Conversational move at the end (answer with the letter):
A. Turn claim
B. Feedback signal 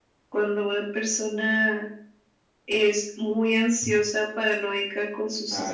B